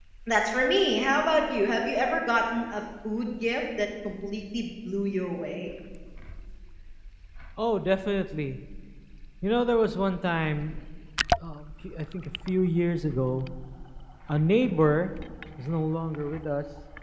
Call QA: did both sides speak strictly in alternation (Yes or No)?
Yes